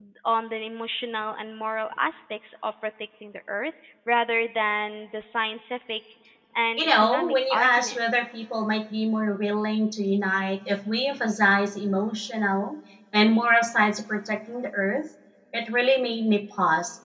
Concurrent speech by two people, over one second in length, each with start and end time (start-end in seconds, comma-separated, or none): 6.8-8.0